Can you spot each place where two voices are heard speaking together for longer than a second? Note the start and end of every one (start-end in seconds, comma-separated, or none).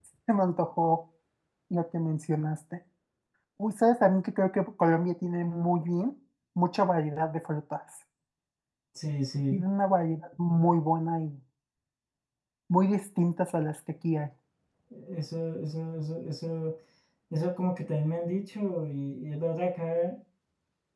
none